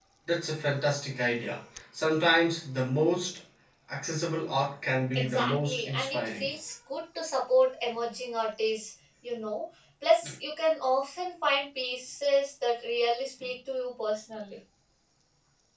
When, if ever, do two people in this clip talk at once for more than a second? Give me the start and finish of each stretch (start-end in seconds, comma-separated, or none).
5.2-6.5